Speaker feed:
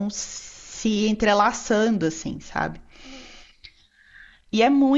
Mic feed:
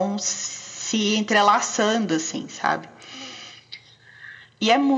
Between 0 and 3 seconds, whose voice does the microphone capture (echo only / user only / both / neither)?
echo only